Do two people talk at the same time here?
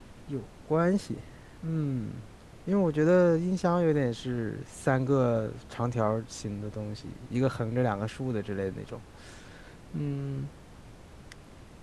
No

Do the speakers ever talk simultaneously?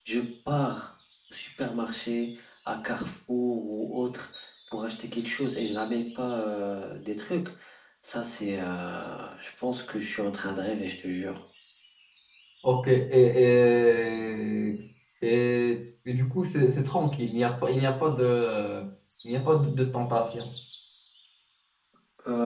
No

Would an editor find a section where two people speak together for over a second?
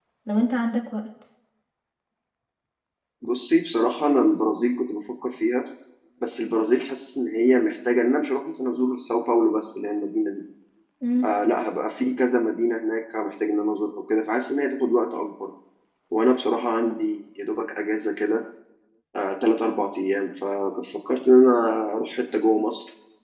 No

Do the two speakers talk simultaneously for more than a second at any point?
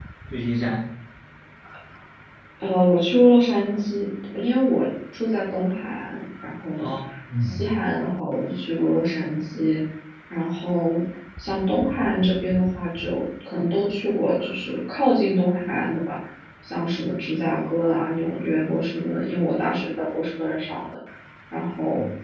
No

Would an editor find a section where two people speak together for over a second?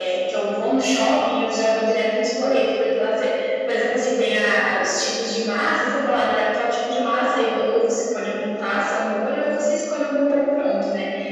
No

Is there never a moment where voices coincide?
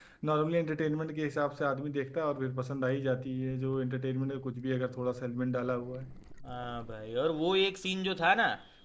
Yes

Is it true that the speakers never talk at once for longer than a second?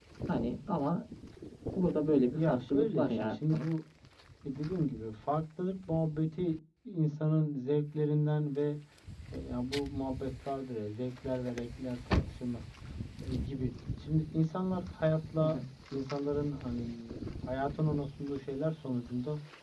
No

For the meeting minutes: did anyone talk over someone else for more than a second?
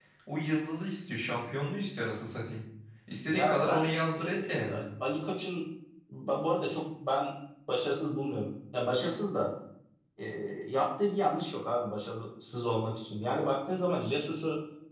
Yes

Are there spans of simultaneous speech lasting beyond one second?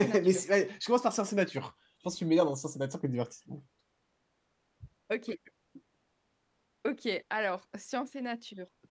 No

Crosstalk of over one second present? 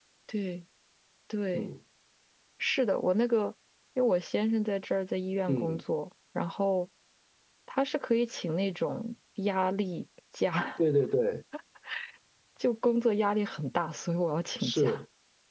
No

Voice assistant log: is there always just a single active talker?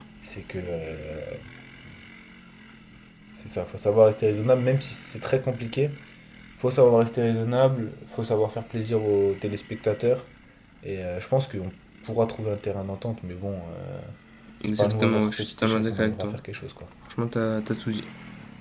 No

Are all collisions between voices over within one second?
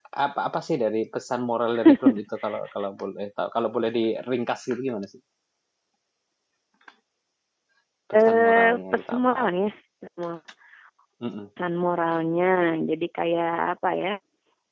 No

